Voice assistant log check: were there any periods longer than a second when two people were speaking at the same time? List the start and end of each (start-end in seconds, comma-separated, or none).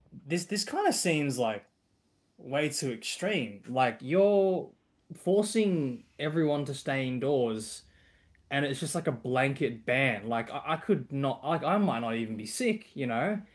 none